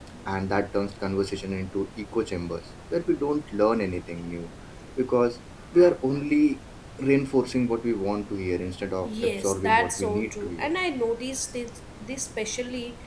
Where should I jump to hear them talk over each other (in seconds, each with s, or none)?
9.0 s